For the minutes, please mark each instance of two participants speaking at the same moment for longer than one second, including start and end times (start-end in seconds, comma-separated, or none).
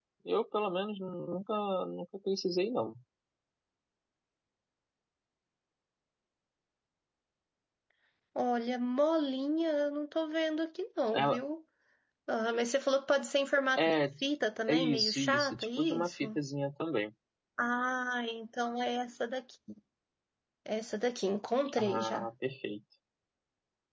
14.7-16.4